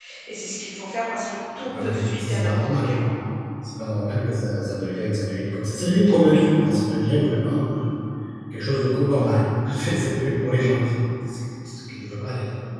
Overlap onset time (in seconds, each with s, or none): 1.6 s